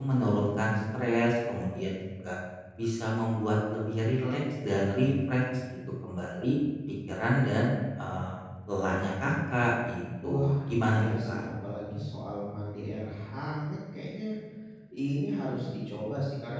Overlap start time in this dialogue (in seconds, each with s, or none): 10.2 s